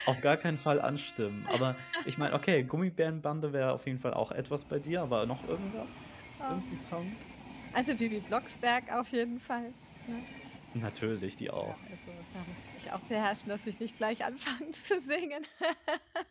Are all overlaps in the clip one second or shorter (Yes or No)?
Yes